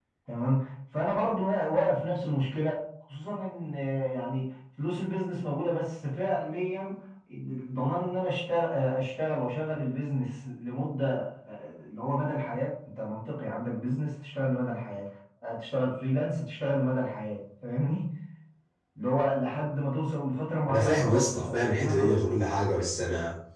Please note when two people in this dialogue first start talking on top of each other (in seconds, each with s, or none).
20.7 s